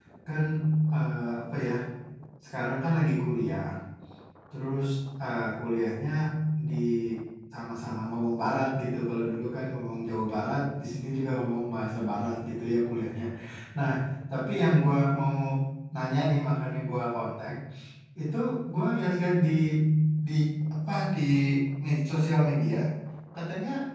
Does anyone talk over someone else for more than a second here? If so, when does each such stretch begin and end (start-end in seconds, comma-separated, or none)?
none